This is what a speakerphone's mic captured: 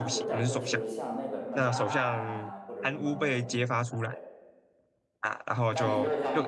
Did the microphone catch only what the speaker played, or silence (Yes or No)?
No